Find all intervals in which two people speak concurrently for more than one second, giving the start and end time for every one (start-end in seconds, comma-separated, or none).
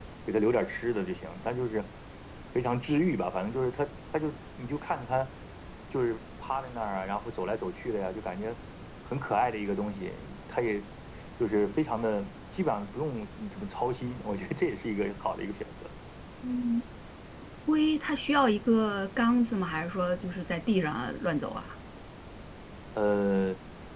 none